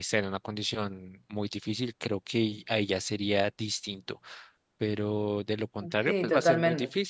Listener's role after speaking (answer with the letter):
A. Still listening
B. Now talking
A